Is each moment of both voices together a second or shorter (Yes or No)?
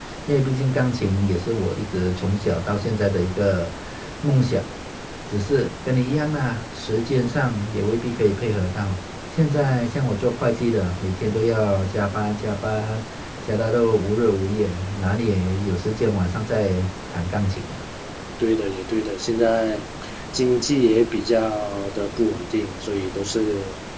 Yes